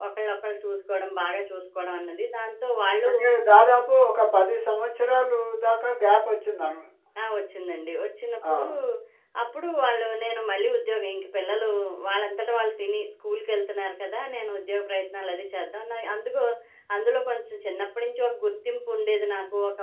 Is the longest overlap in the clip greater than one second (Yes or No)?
No